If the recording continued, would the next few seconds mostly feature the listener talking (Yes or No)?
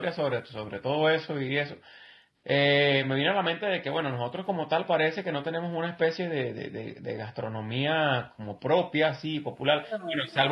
No